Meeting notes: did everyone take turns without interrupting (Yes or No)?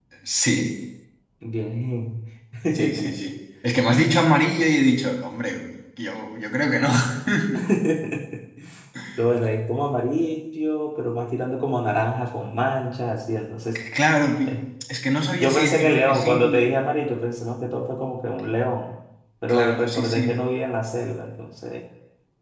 No